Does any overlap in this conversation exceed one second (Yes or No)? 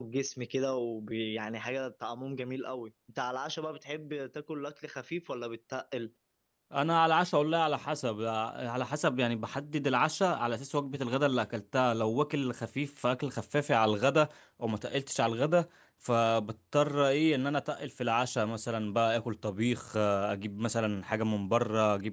No